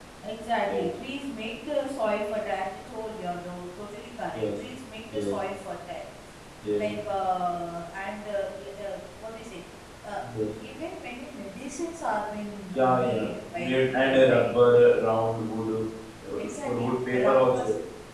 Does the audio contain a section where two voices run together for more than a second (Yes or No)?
Yes